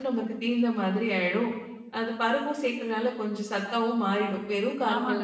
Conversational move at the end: taking over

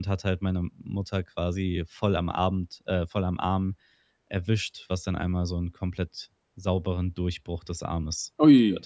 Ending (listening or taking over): taking over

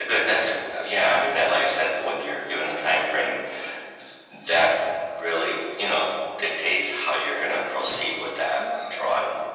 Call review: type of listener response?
taking over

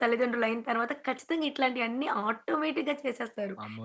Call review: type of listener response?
taking over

